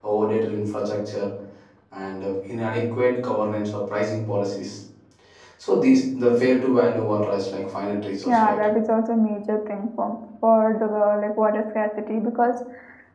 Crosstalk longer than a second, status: none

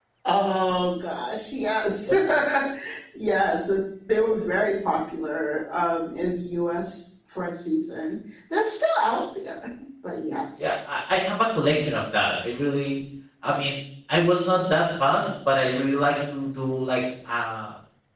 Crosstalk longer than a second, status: none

